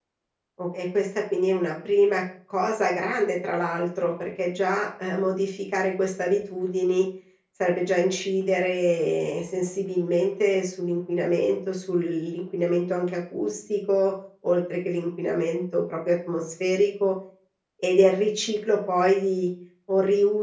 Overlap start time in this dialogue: none

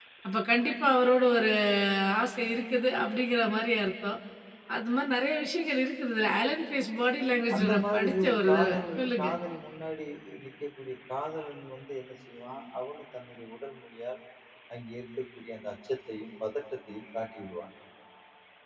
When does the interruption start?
7.5 s

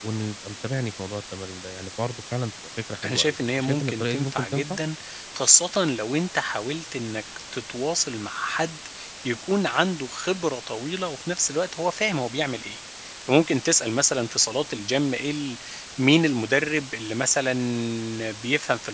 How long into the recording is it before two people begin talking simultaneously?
3.0 s

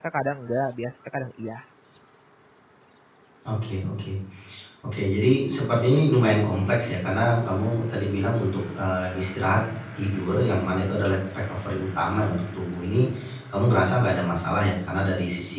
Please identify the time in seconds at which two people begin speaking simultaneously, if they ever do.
none

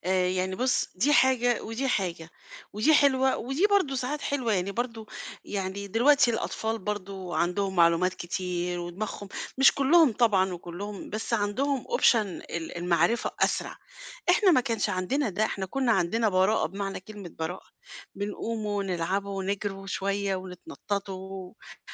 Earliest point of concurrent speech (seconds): none

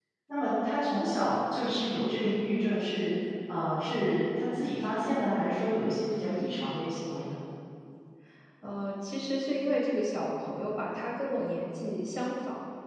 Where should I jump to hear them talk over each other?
none

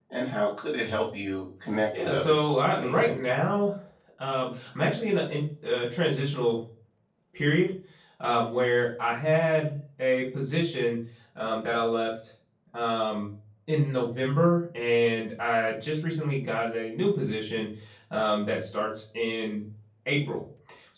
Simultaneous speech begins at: 1.9 s

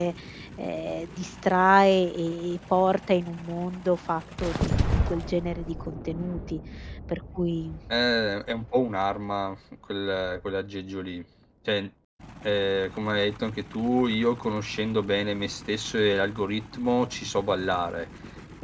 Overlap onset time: none

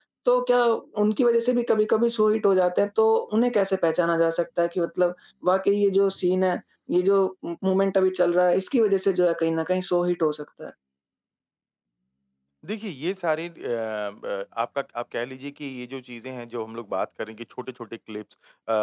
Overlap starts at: none

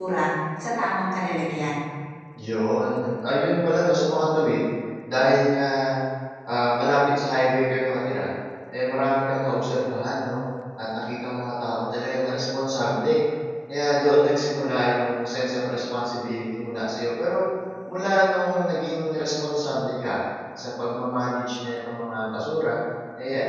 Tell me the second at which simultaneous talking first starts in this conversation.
none

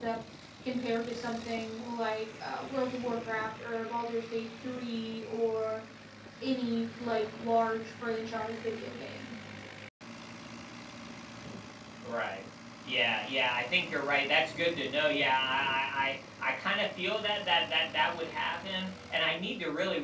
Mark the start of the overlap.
none

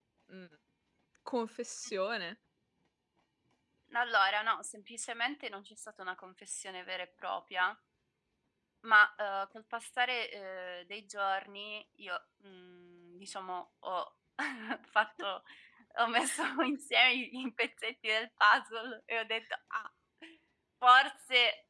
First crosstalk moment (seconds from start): none

